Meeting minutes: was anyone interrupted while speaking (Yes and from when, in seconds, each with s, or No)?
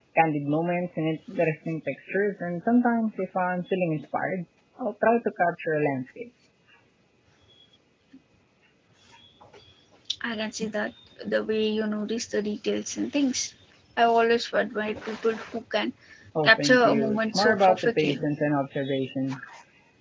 Yes, from 16.4 s